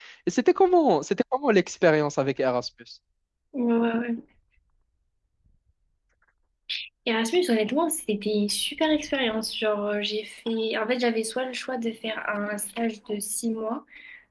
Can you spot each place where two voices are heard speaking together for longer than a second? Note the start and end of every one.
none

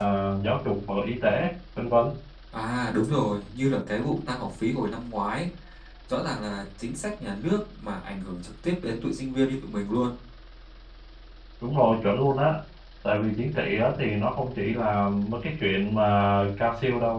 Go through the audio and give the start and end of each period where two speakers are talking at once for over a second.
none

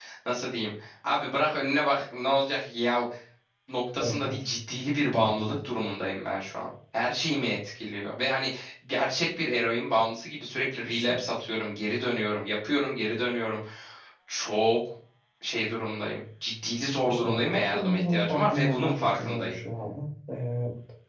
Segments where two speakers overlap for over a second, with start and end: 17.1-19.6

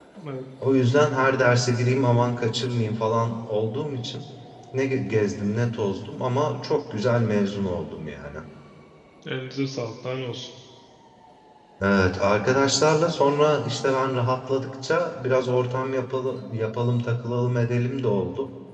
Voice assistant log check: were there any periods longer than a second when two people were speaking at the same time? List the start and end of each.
none

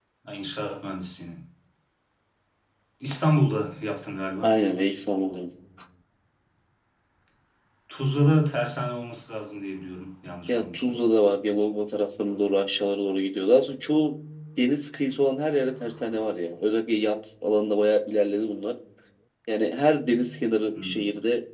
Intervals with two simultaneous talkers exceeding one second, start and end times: none

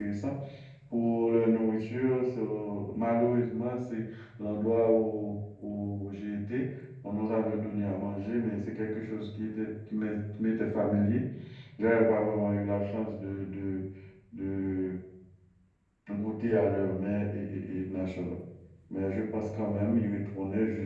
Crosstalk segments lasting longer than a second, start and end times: none

